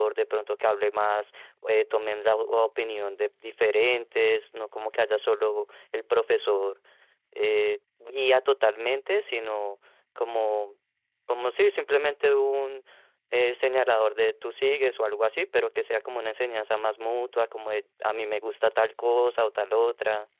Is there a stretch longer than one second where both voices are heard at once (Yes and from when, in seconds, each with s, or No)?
No